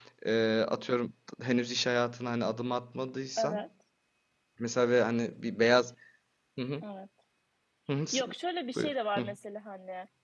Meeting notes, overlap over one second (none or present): none